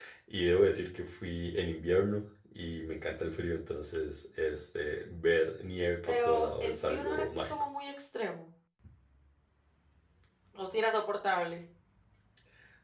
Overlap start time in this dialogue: 6 s

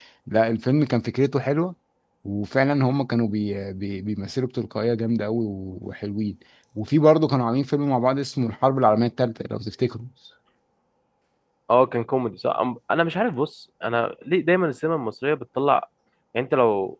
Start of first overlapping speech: none

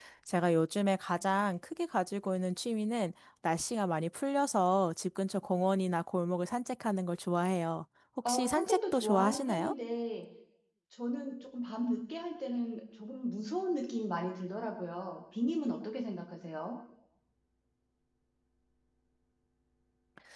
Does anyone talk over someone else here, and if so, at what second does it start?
8 s

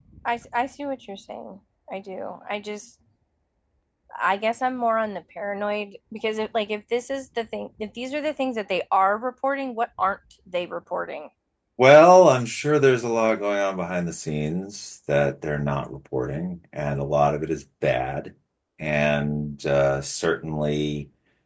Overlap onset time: none

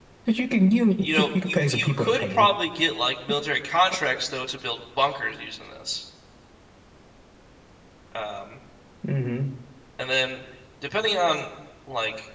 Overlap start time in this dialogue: 1 s

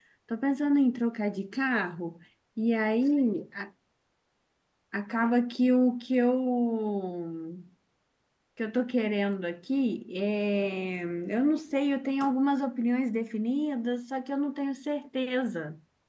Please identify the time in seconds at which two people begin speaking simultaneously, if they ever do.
none

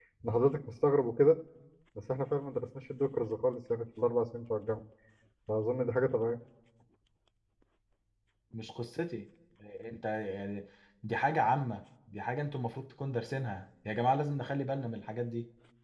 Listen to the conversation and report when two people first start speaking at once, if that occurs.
none

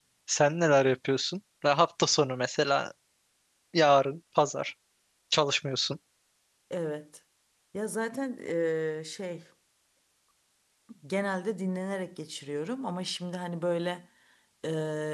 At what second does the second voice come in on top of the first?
none

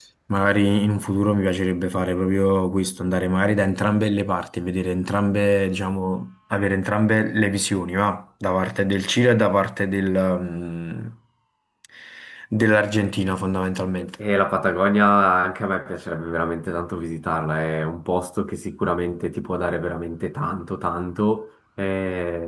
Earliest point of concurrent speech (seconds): none

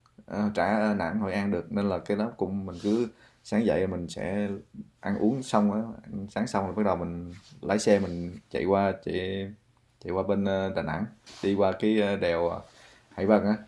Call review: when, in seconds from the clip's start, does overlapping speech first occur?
none

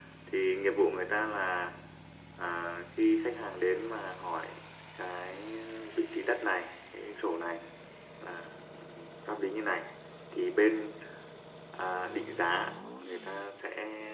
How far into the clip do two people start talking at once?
none

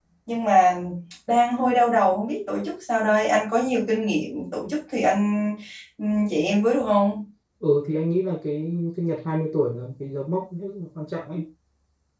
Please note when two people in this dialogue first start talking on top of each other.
none

